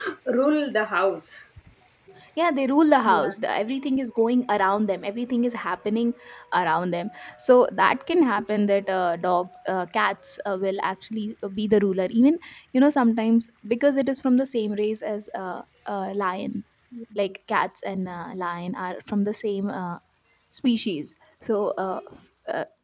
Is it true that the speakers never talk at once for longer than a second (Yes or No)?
Yes